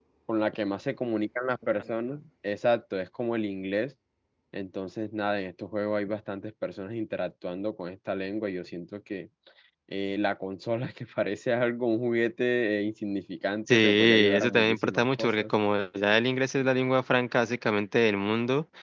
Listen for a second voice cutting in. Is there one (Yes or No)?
Yes